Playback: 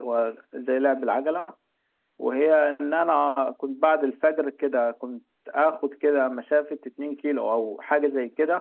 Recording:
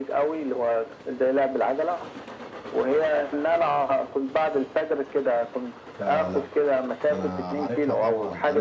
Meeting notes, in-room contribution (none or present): present